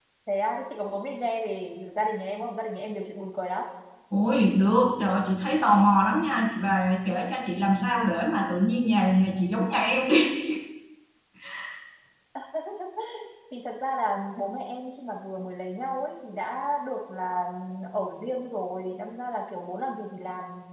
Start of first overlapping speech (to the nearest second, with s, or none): none